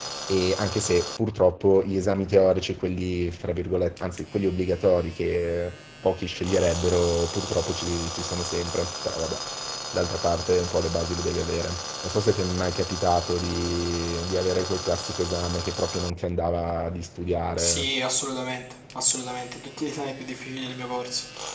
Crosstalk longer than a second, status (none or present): none